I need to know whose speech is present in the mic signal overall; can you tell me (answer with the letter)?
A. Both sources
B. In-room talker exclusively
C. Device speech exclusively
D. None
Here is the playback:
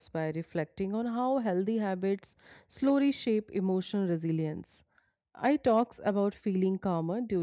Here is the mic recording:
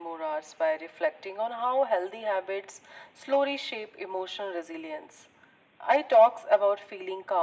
C